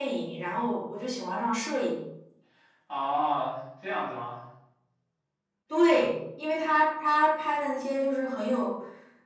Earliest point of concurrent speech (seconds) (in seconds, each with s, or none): none